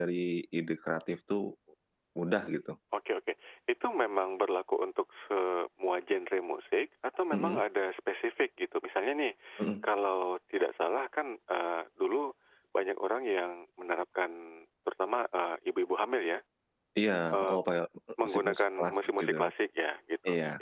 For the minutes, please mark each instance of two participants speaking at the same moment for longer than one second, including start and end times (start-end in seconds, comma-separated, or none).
18.2-19.5